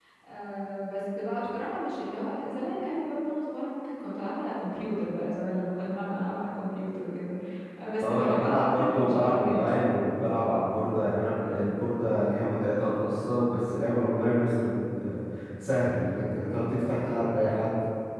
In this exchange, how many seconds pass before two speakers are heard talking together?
8 s

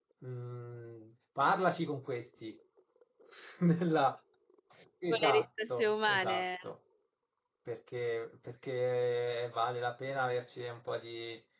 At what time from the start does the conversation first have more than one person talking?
5 s

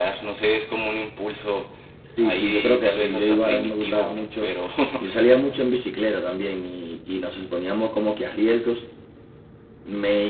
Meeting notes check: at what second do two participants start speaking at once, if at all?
2 s

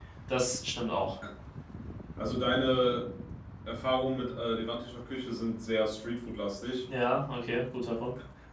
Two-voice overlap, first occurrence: none

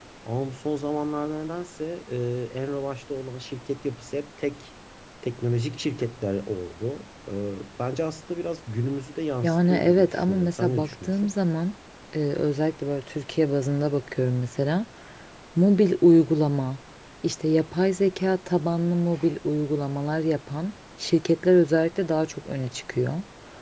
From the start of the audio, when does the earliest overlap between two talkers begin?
9 s

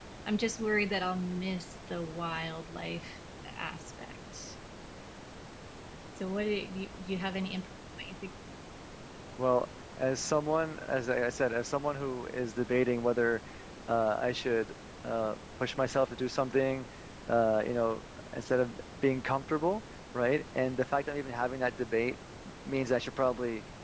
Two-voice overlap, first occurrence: none

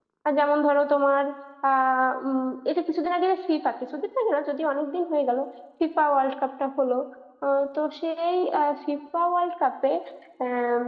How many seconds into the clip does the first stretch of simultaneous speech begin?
none

